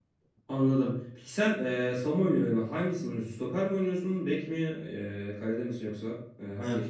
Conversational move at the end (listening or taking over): taking over